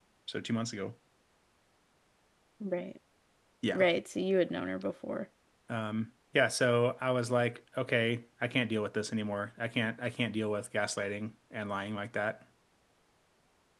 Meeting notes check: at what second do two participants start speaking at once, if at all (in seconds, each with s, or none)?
none